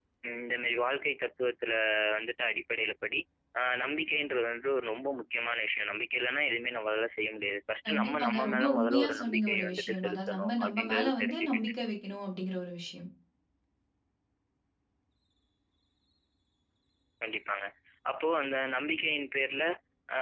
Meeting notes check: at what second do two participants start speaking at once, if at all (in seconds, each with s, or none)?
7.8 s